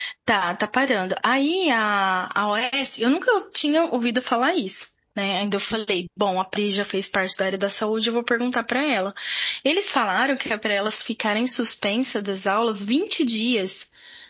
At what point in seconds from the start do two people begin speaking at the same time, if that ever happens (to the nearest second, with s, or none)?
none